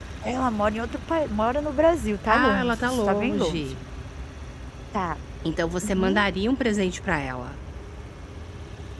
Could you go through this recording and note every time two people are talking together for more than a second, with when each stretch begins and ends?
2.3-3.6

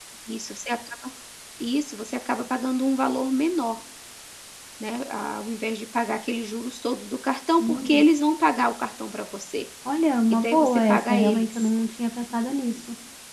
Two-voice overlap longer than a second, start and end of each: 10.3-11.7

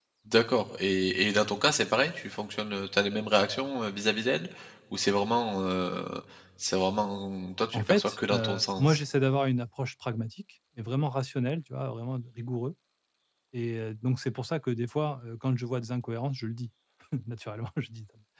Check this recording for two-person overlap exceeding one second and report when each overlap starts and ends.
7.7-9.0

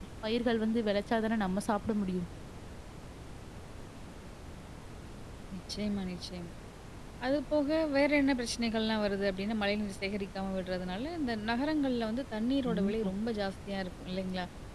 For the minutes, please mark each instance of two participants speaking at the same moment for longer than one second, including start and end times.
none

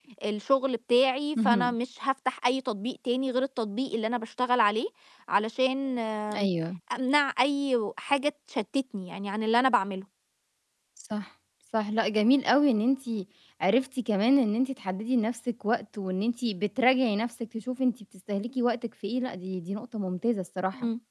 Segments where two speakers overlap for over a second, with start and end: none

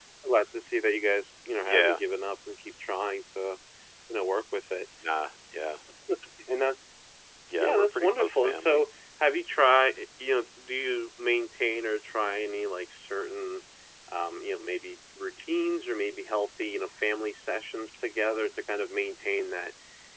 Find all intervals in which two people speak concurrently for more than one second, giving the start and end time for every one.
7.6-8.8

